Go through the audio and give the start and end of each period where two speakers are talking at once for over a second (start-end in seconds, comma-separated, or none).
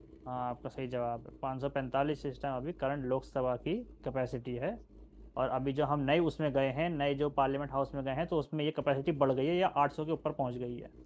none